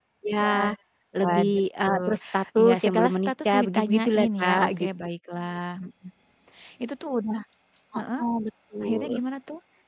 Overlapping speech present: Yes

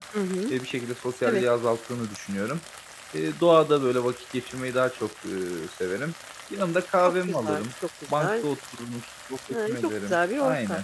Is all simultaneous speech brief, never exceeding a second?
No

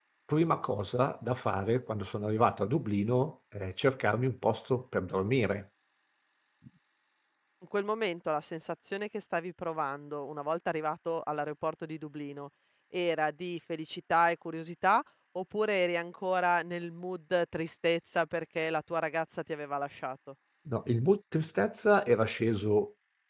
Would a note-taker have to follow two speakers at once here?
No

